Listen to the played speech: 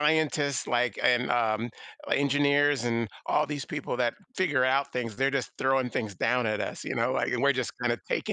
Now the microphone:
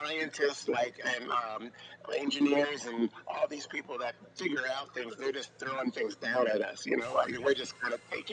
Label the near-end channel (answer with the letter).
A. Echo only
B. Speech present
A